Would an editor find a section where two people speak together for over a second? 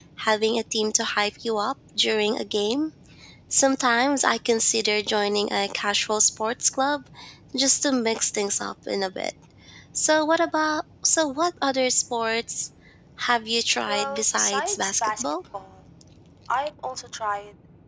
Yes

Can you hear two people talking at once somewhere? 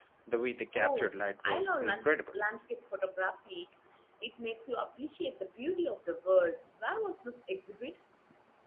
Yes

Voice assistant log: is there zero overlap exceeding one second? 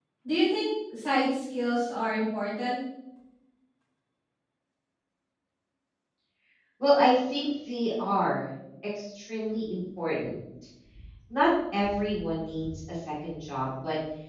Yes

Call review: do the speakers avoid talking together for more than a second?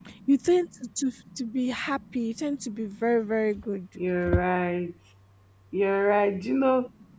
Yes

